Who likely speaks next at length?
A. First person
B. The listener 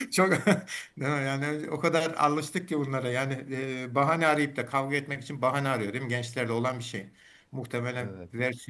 A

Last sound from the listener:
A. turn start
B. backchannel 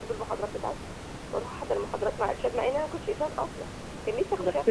A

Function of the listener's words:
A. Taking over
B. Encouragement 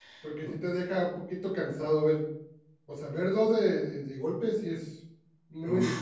A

